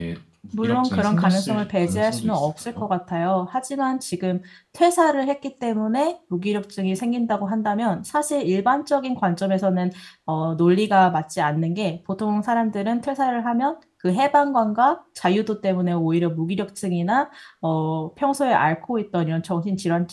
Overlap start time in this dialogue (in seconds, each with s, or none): 0.5 s